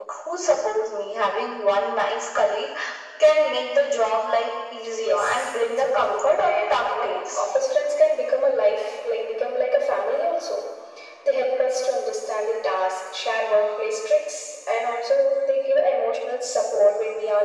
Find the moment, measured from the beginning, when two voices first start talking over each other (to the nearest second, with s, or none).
5 s